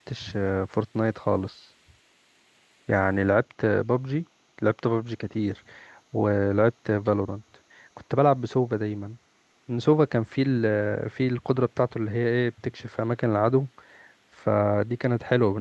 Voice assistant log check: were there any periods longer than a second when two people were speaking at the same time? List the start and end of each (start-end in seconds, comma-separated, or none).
none